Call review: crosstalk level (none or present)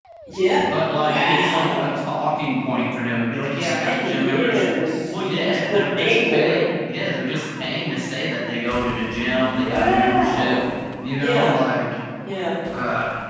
present